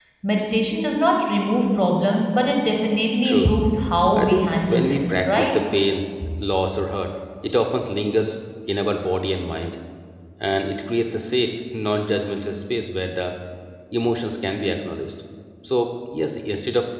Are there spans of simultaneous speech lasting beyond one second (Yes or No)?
Yes